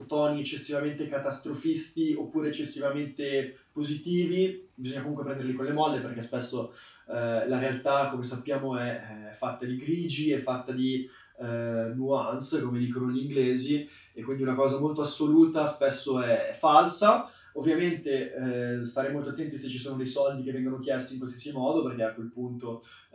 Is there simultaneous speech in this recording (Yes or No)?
No